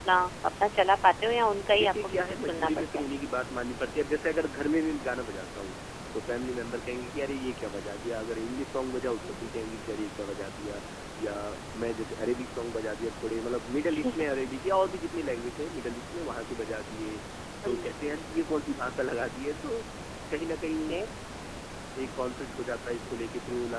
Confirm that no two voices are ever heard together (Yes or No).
No